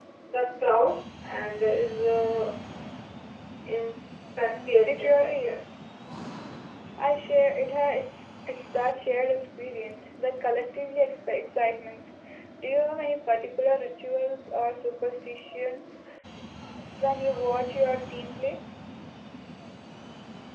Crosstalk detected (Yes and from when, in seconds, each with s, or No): Yes, from 4.5 s